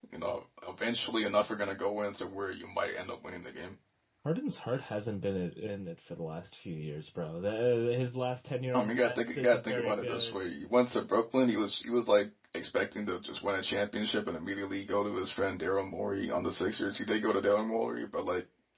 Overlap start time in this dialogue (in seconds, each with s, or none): 8.7 s